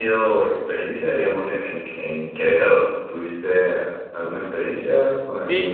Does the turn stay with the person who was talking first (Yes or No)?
No